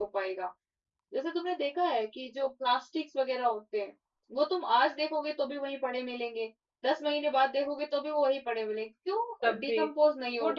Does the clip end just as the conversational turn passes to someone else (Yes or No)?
Yes